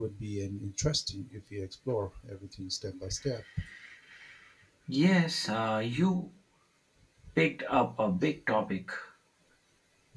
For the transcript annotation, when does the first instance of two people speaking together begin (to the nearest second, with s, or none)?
none